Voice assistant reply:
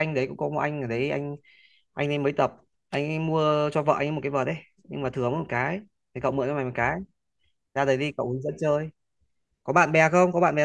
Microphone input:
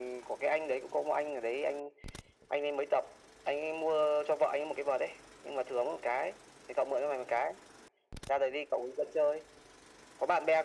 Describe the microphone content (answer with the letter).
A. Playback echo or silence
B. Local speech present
A